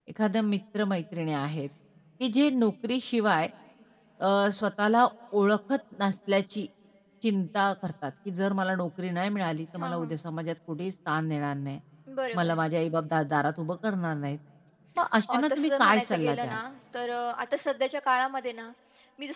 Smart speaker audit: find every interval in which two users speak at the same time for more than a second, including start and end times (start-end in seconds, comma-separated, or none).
15.3-16.6